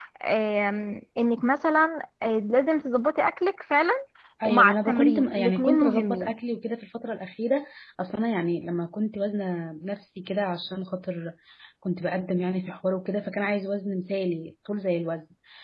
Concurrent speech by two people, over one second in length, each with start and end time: 4.4-6.4

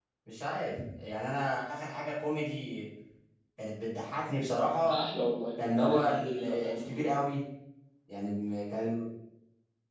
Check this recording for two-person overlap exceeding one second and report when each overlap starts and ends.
5.6-7.1

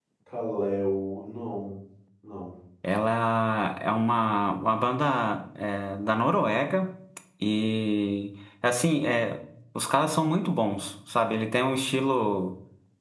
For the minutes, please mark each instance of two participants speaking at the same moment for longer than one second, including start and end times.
none

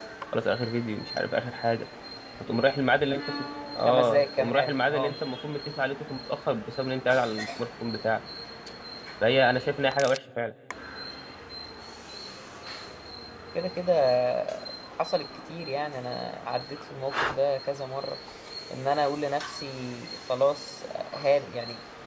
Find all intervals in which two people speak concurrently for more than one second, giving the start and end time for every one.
3.9-5.2

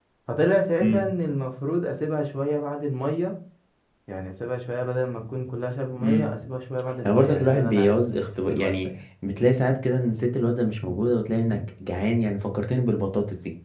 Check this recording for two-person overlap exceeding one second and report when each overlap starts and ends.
7.0-8.9

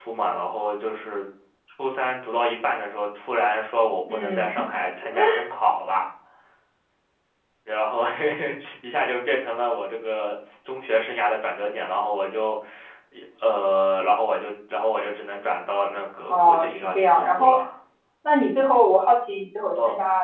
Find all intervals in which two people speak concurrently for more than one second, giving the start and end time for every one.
16.3-17.5

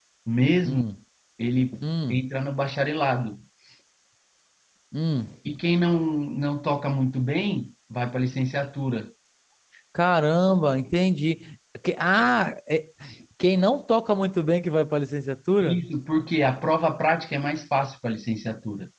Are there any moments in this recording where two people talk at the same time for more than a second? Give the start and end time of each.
none

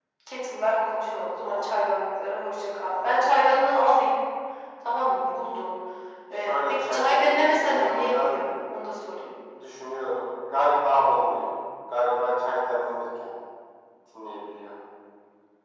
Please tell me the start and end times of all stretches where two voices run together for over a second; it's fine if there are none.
6.5-8.3

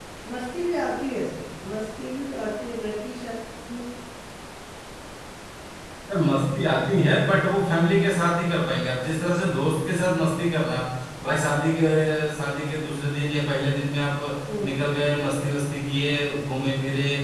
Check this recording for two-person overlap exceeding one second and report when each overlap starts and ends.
none

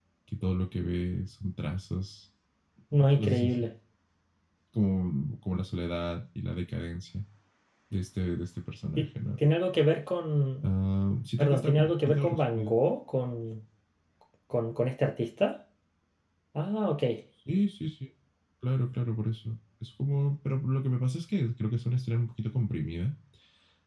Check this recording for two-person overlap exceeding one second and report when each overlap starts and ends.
11.4-12.7

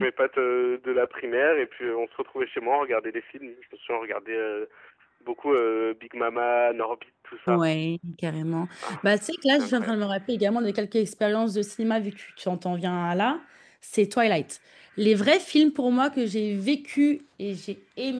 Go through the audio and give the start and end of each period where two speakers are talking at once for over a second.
none

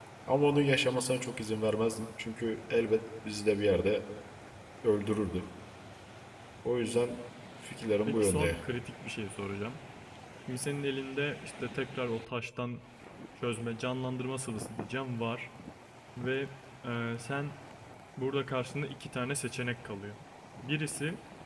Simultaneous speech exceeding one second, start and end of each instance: none

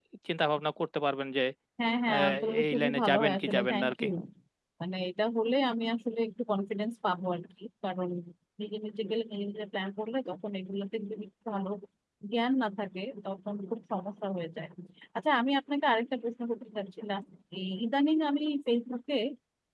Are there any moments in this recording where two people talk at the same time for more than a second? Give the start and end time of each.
2.1-4.0

